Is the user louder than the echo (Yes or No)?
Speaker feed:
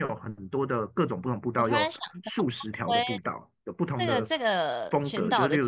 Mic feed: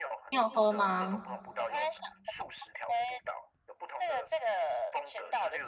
Yes